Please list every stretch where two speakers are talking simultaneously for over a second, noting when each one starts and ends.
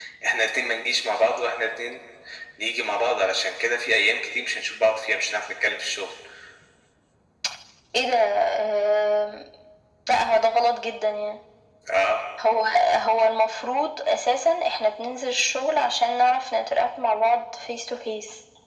none

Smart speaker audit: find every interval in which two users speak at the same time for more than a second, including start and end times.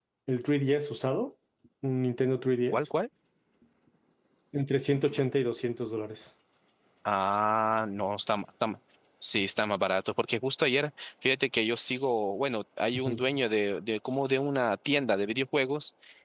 none

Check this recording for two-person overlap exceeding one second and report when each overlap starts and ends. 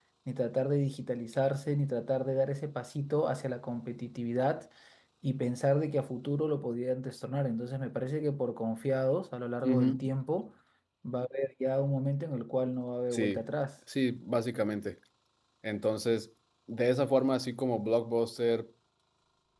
none

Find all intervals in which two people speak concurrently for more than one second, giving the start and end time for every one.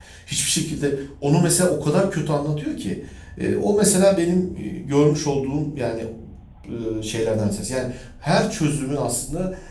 none

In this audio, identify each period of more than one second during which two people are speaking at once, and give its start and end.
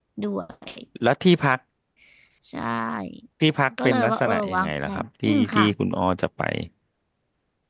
3.8-5.6

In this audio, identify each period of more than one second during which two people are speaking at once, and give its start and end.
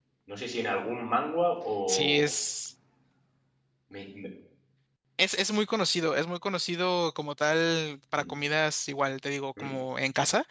none

